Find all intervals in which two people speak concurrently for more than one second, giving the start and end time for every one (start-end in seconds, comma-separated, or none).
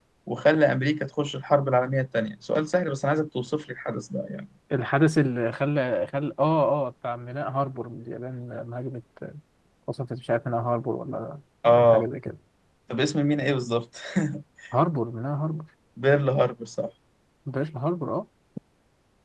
none